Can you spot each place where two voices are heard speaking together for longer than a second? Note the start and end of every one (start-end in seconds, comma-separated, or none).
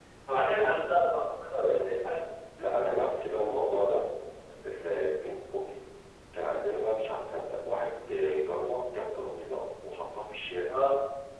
none